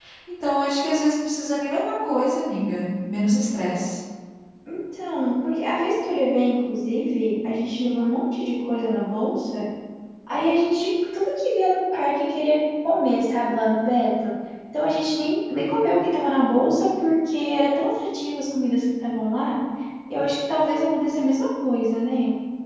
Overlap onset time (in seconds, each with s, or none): none